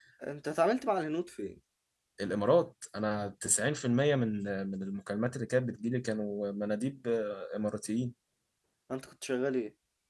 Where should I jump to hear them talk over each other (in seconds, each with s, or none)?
none